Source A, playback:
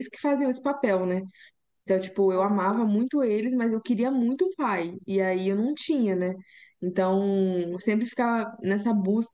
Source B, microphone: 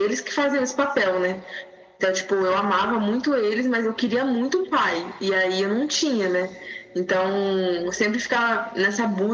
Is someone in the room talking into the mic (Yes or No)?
No